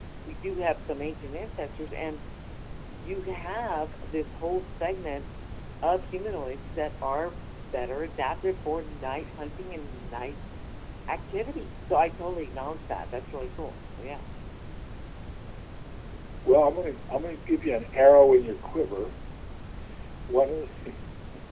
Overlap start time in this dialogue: none

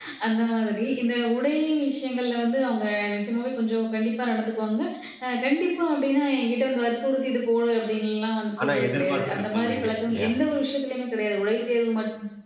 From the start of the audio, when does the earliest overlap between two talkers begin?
8.6 s

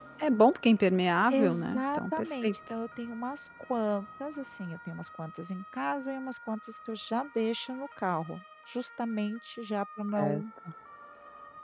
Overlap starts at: 1.3 s

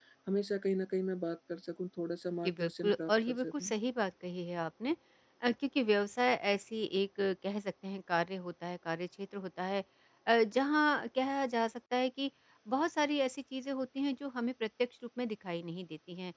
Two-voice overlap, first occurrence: 2.4 s

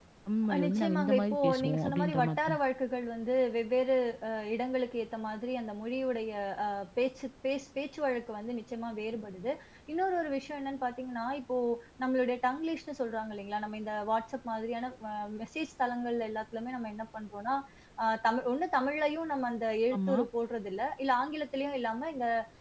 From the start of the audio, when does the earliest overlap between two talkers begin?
0.5 s

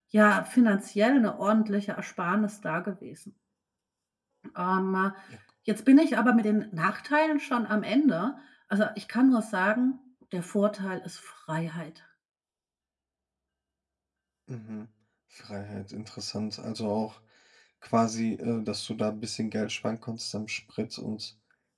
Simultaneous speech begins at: none

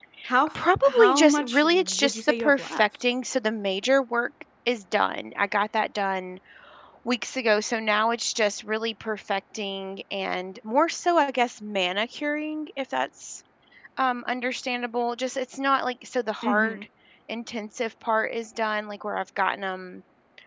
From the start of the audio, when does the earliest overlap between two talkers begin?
0.8 s

